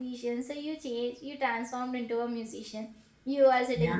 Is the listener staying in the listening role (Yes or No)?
Yes